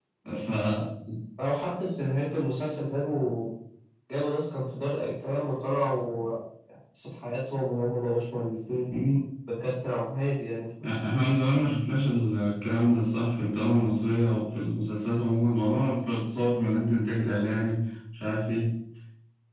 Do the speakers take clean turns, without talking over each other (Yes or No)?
Yes